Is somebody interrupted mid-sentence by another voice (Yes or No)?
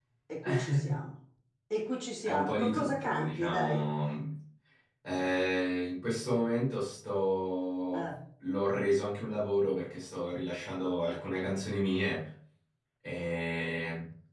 Yes